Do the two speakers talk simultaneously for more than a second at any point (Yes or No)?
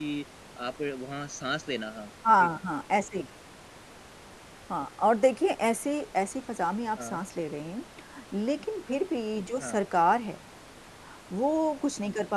No